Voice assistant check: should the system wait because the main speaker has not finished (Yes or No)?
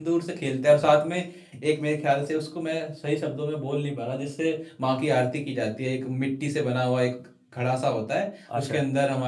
Yes